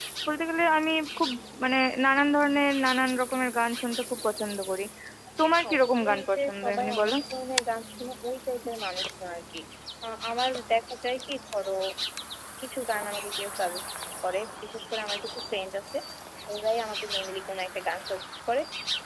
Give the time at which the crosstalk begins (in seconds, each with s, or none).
5.6 s